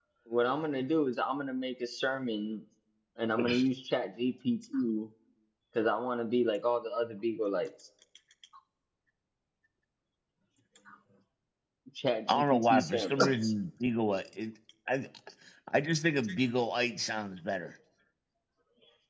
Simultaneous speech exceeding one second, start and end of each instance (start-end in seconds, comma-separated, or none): 12.3-13.5